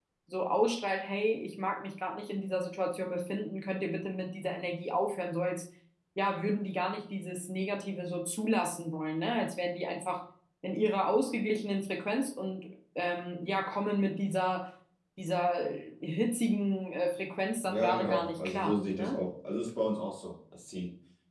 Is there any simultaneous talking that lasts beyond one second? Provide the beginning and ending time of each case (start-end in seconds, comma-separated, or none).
17.7-19.2